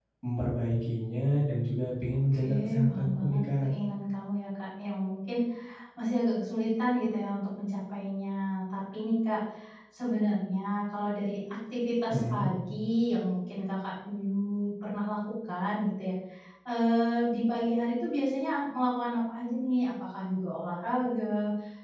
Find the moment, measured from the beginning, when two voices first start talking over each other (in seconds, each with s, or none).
2.4 s